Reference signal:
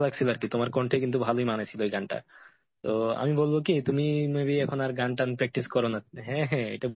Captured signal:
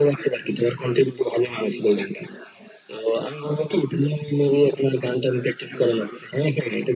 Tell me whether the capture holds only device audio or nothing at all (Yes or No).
Yes